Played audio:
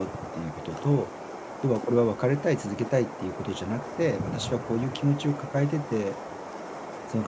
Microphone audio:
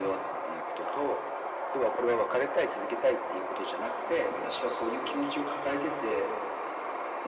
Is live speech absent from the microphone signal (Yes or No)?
Yes